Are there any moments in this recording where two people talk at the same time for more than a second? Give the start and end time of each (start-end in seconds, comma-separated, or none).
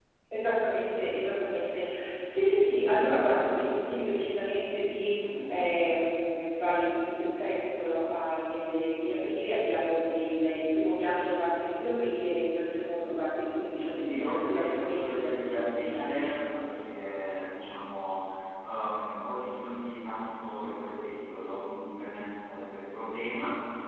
13.8-16.3